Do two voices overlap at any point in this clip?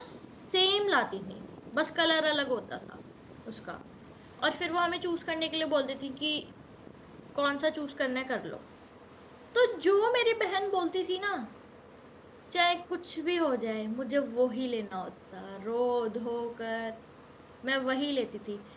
No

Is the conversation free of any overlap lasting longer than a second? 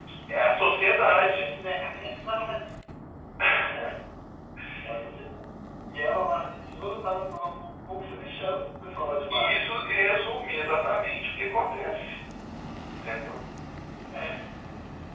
Yes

